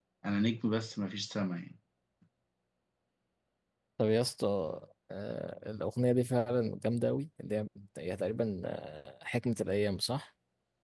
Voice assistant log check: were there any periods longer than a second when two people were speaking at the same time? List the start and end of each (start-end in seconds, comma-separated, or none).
none